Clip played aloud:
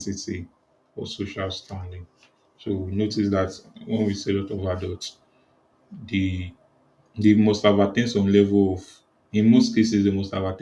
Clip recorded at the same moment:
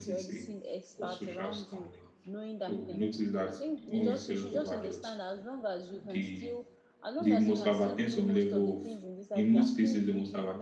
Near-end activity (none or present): present